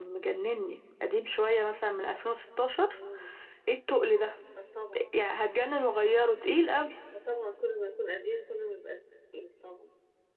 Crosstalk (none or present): none